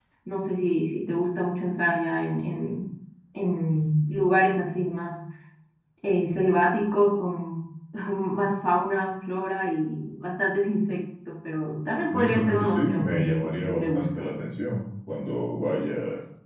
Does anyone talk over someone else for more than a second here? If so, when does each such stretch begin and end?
12.1-14.3

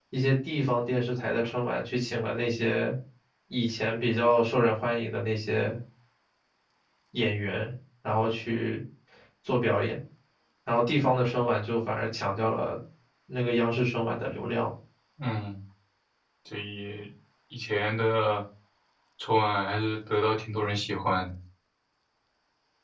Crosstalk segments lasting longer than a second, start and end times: none

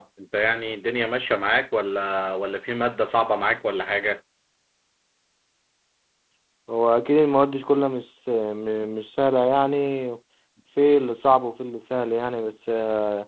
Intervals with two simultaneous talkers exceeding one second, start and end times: none

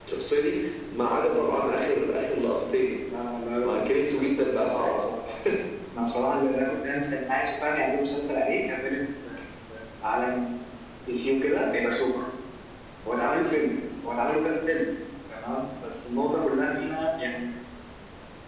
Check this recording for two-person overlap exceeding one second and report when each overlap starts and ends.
3.6-4.9

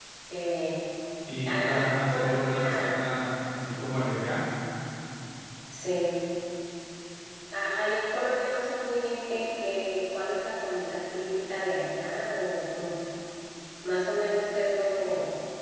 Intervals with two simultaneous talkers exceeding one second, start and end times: 1.4-2.9

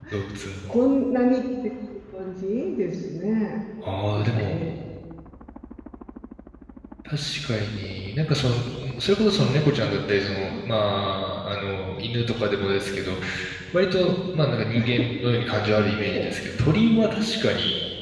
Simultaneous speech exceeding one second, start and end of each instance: none

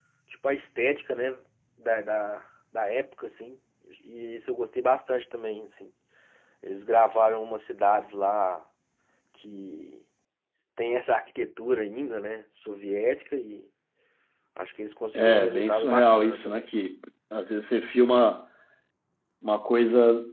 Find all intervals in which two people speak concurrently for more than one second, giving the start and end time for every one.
15.2-16.6

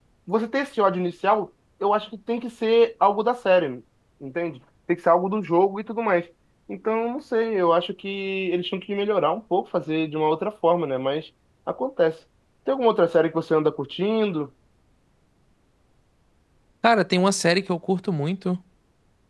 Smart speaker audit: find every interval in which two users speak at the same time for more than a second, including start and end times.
none

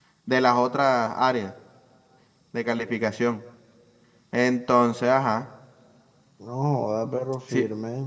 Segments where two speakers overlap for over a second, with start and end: none

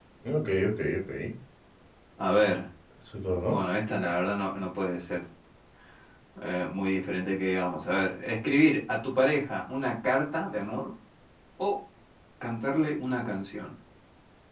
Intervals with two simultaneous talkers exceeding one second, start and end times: none

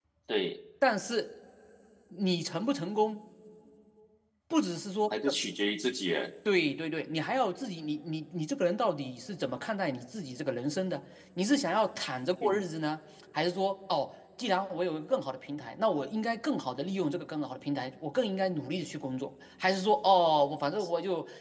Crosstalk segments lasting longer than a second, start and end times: none

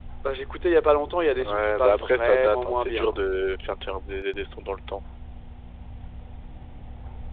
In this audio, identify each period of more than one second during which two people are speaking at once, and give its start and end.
1.4-3.1

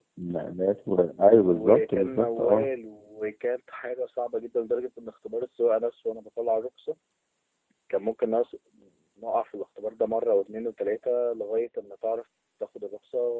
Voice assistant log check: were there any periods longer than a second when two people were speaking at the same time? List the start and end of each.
1.3-2.7

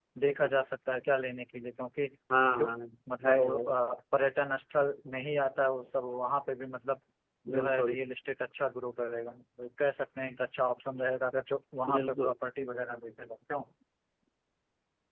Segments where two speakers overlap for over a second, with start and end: none

